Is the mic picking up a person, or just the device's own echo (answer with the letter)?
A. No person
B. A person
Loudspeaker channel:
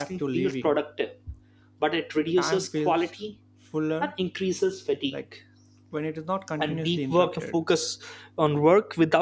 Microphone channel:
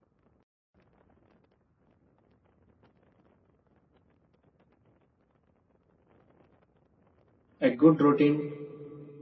B